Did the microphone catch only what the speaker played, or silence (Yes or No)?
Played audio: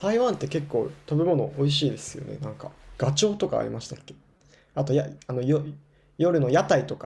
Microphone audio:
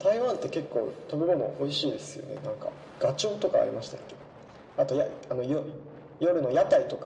Yes